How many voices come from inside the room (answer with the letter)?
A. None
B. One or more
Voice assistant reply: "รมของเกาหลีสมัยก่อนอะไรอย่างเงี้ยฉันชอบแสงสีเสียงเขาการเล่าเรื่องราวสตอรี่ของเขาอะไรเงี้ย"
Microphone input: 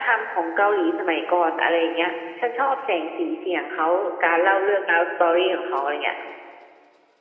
A